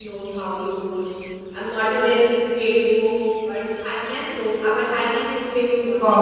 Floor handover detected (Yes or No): Yes